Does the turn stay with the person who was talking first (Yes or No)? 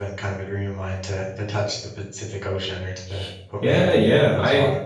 No